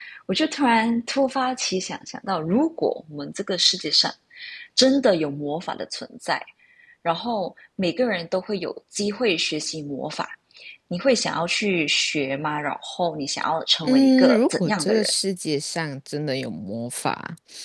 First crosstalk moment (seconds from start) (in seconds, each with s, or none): 13.8 s